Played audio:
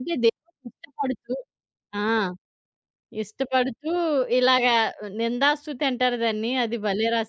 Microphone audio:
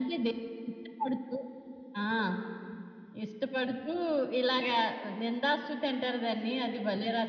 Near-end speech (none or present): none